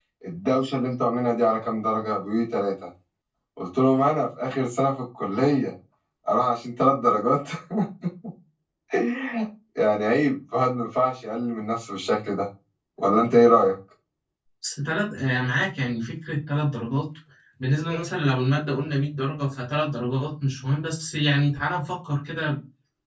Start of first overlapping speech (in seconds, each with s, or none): none